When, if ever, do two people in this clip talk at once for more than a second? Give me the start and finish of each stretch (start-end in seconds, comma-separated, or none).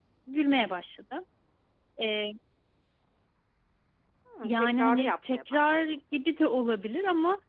4.4-6.0